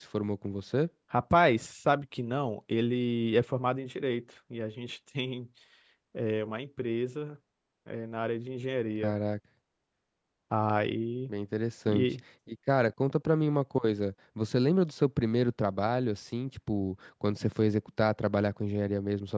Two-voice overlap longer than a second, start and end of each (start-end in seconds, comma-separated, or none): none